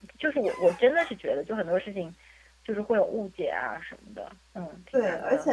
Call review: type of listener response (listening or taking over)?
taking over